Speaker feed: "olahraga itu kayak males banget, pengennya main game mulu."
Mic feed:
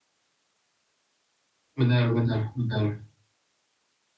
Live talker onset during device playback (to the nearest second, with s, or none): 2 s